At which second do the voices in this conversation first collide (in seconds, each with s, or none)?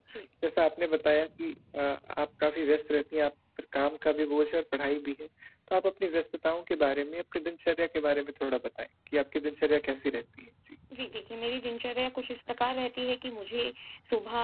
none